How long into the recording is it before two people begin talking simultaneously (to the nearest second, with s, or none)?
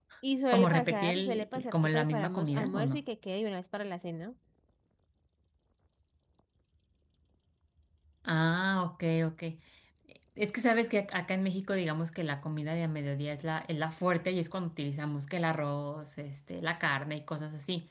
1 s